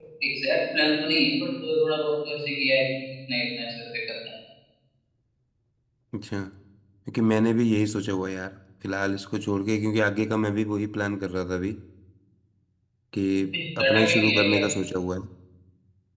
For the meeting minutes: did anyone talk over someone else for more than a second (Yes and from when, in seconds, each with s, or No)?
Yes, from 13.3 s